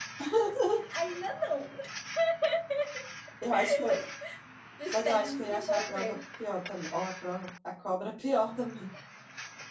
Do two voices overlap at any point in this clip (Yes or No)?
Yes